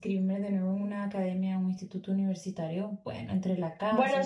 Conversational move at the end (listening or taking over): taking over